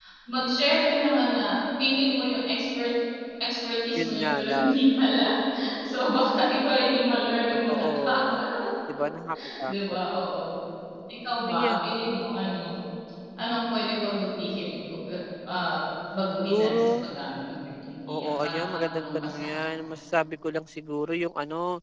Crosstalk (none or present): present